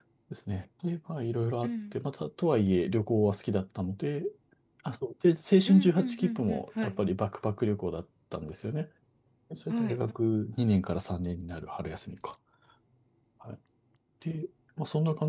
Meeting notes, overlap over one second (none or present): present